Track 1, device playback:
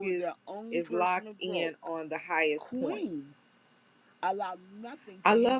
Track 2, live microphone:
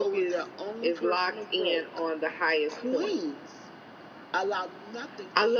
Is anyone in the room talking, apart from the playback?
No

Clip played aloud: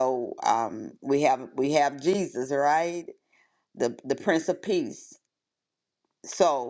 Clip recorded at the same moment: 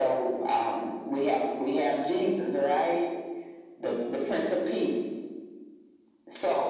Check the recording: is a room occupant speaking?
No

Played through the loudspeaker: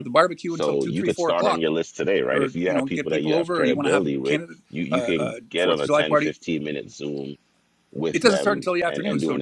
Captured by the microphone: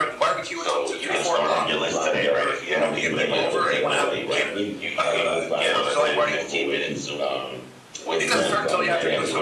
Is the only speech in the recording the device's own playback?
No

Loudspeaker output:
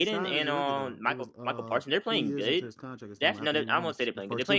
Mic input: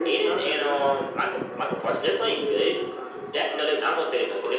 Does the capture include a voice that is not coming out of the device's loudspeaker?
No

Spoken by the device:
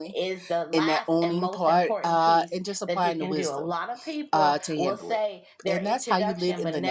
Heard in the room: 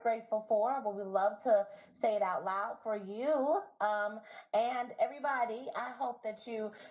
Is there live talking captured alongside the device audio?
Yes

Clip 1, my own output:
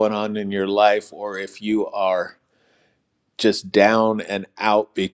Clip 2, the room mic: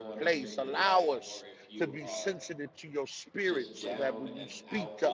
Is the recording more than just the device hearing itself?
Yes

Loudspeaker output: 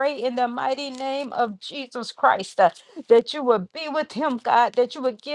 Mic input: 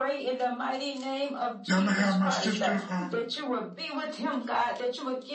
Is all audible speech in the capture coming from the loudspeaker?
No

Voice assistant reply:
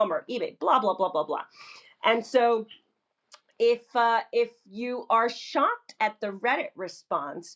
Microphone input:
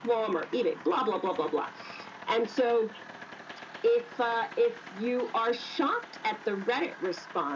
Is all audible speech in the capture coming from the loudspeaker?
Yes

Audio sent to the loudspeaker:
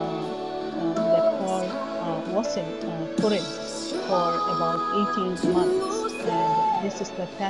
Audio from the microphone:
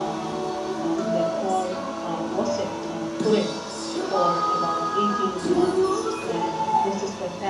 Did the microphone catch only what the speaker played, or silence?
Yes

